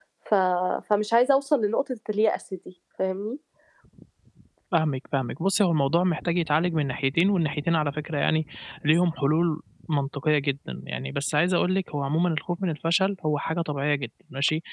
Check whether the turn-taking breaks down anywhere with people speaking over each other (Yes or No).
No